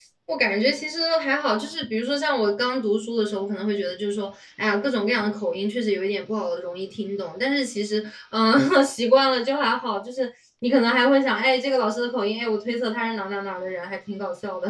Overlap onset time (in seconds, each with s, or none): none